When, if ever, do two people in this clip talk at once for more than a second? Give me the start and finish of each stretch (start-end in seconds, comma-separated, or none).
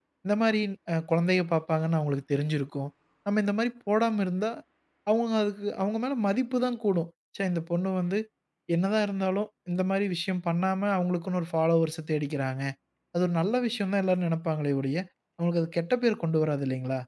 none